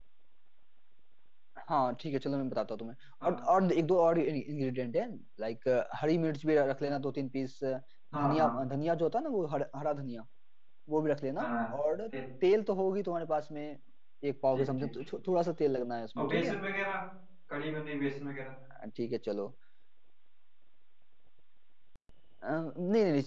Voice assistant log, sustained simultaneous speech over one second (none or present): none